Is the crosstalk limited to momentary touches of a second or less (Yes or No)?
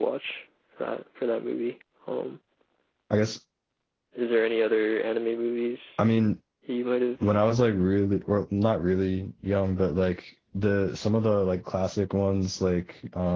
Yes